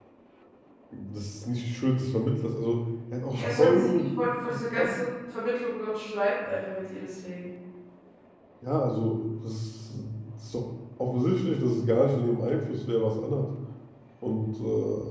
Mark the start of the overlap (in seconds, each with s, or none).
3.3 s